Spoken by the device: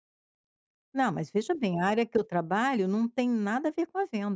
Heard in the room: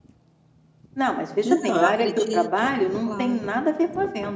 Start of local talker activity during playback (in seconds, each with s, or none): 1.4 s